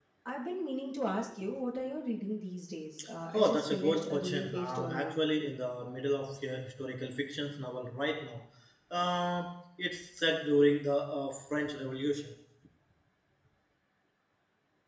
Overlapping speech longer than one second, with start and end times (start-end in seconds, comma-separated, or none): 3.3-5.1